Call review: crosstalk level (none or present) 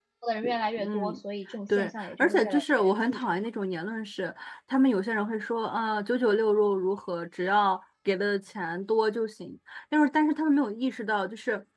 present